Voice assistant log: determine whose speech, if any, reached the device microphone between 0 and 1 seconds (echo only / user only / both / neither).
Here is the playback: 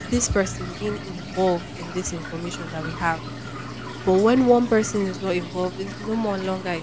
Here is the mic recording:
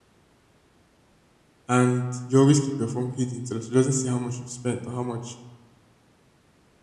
neither